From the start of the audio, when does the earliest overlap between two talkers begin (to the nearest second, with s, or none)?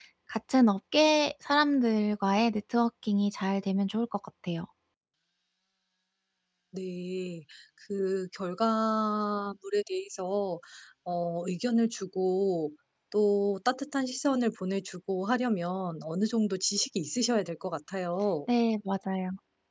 none